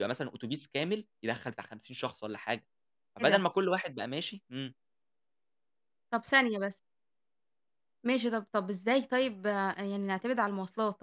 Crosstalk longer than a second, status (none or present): none